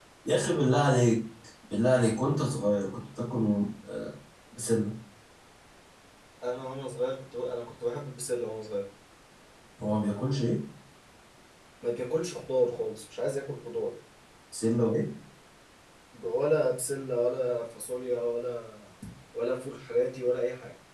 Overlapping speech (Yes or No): No